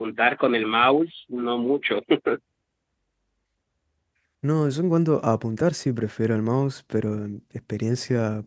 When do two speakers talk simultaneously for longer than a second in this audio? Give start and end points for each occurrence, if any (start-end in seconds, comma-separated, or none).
none